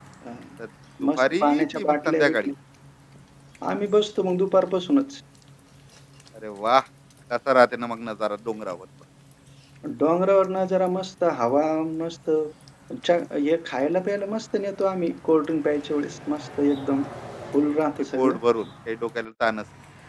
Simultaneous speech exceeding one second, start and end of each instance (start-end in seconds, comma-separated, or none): 1.2-2.5